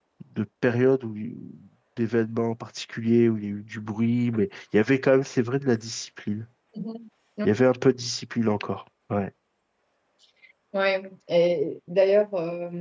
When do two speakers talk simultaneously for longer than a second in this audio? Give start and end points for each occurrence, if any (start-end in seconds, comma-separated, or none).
none